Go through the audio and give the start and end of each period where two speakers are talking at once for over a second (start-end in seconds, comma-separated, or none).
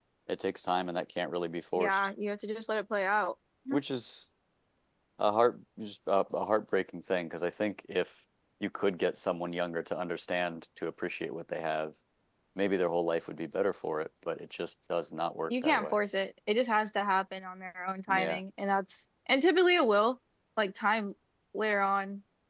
none